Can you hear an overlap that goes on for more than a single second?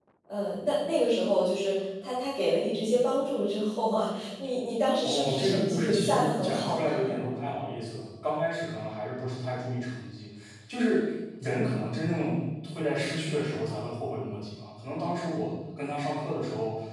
Yes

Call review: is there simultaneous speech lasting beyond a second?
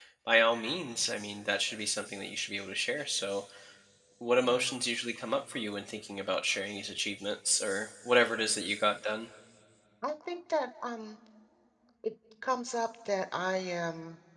No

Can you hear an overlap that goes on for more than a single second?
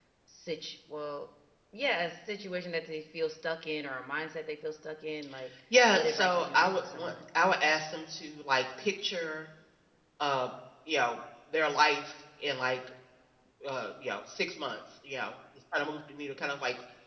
Yes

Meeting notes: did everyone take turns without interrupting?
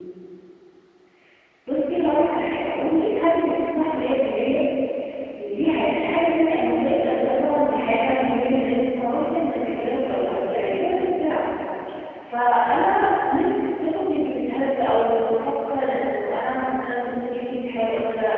No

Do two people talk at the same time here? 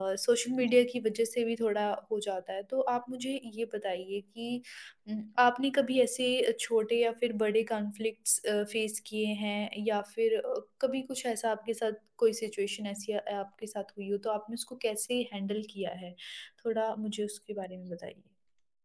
No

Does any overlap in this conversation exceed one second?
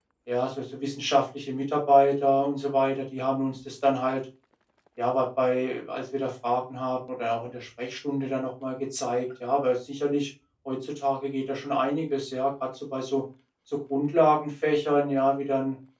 No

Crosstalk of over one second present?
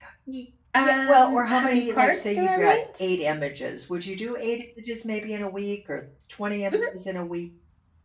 Yes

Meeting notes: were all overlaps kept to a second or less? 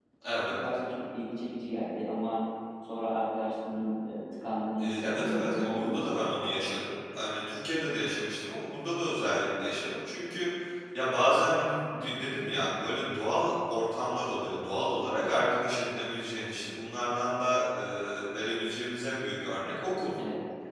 No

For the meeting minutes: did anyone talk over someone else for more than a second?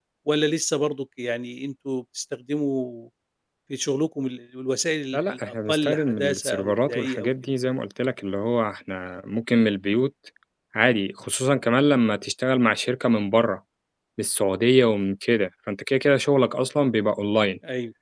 Yes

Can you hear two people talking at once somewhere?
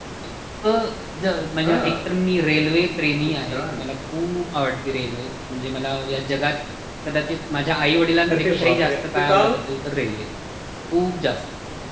Yes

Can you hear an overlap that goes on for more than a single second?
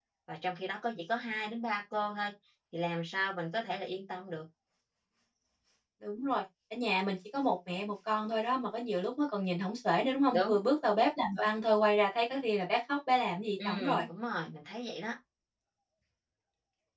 No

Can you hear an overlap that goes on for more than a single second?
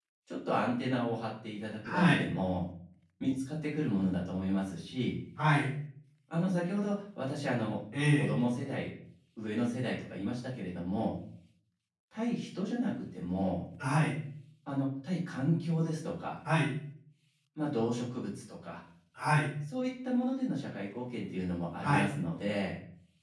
No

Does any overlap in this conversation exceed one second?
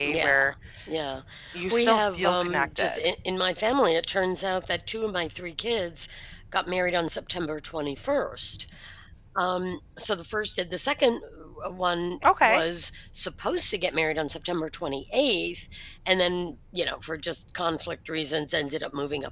Yes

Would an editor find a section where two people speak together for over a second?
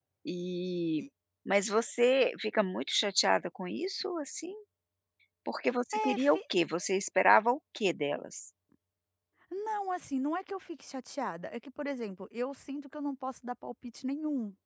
No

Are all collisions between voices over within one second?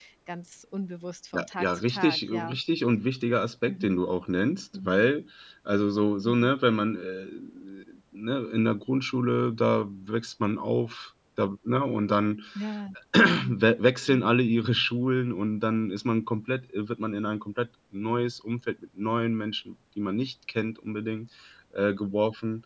No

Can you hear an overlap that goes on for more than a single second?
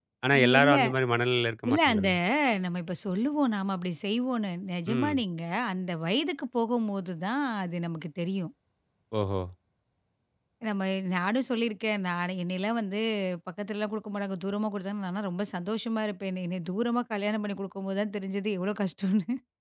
No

